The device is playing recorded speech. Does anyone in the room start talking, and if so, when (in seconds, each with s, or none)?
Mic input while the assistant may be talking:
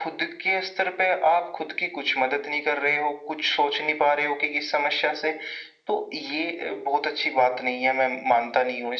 none